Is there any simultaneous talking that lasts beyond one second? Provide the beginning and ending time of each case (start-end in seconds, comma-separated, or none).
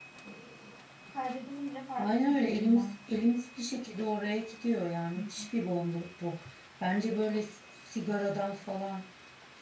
2.0-3.3